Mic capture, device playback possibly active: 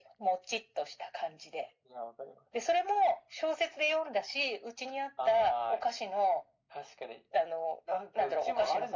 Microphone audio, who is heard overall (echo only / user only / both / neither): echo only